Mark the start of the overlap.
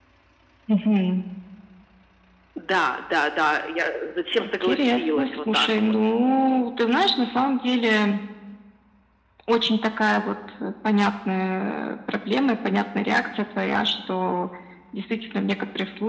4.6 s

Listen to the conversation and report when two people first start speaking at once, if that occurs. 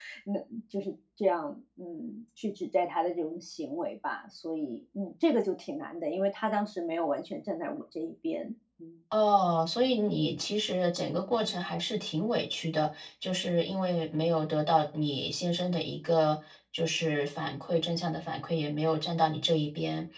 none

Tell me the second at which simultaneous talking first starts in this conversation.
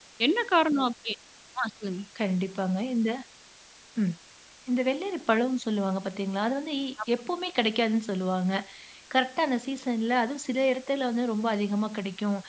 none

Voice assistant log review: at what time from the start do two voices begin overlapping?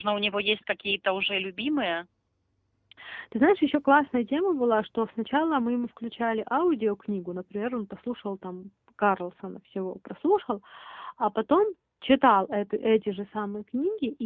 none

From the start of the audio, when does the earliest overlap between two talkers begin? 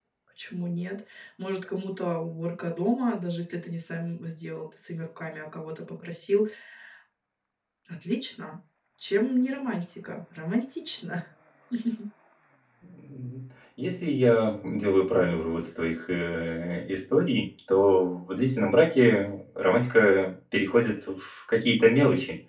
none

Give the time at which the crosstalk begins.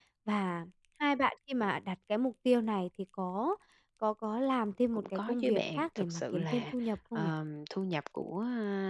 4.9 s

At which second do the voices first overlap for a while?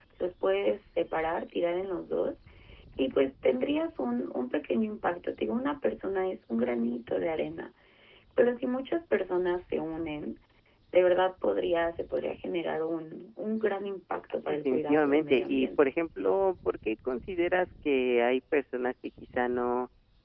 14.4 s

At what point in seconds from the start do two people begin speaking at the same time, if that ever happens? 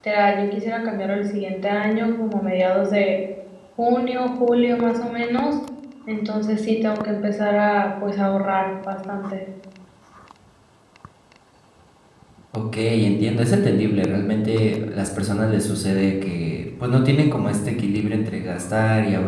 none

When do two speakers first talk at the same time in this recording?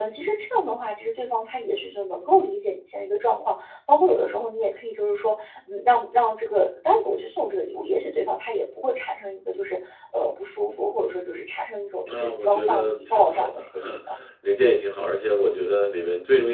12.1 s

